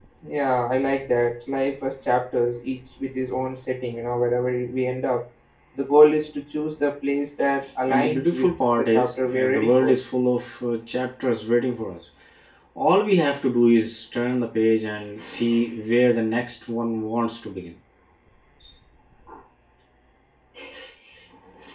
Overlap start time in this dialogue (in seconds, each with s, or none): 7.9 s